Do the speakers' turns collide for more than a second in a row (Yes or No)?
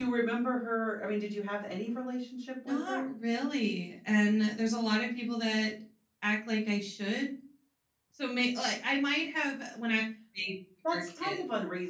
No